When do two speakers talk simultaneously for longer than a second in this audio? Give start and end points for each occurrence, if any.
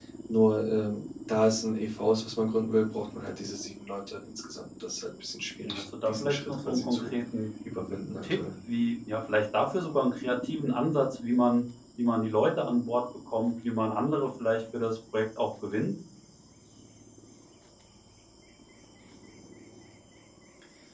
5.7-7.1

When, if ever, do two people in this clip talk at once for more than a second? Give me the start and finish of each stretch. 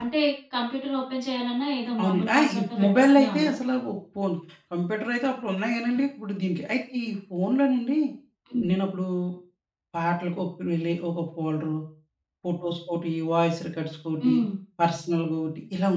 2.0-3.5

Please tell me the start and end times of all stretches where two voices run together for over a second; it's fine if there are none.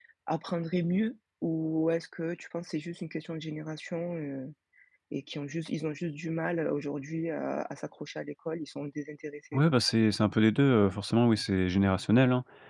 none

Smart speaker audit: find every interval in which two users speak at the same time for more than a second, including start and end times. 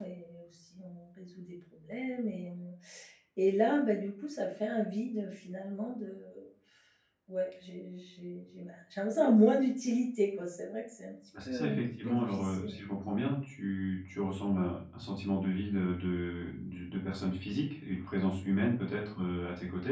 11.4-12.8

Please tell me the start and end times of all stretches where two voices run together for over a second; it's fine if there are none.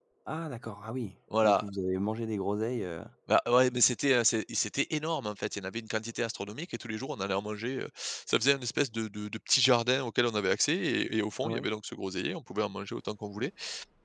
none

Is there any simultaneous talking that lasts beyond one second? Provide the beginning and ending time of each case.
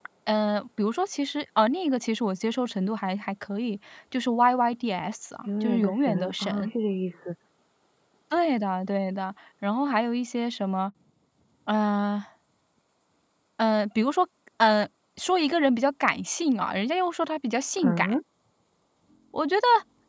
5.5-6.7

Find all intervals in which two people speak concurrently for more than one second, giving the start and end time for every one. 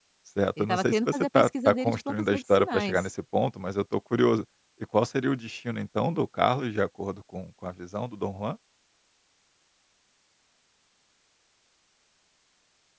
0.6-3.1

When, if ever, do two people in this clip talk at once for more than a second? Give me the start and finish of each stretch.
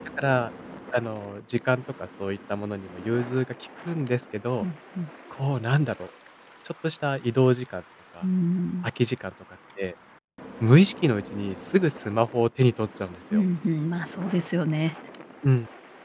none

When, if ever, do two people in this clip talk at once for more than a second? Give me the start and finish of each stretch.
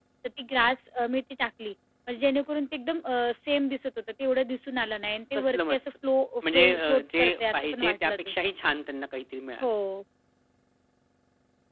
6.5-8.3

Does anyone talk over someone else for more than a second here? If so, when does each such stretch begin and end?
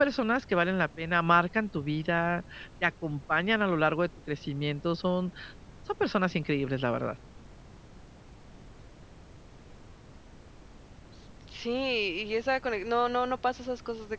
none

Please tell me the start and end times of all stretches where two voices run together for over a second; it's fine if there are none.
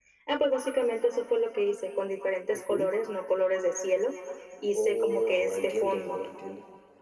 4.8-6.2

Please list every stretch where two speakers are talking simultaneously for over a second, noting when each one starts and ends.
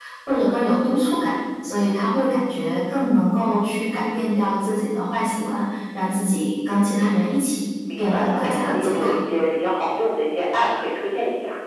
8.0-9.2

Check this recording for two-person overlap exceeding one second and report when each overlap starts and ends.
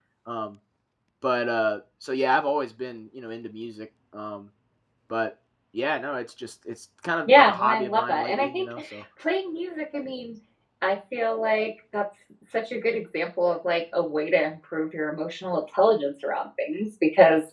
7.3-8.7

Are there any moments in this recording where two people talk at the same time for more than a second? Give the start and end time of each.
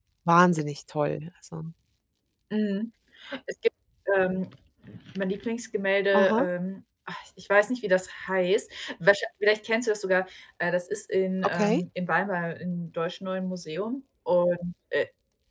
none

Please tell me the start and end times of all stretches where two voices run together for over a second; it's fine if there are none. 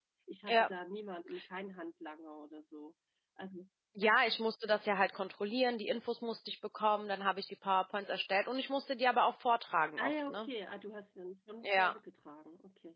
none

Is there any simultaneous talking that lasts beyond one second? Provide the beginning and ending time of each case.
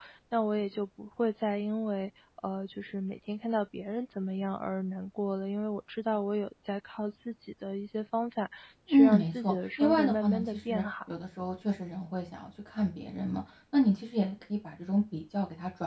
8.9-10.8

